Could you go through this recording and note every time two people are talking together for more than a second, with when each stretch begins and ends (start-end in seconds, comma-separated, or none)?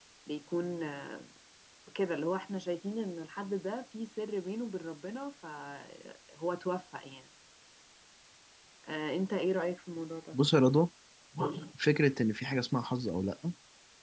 none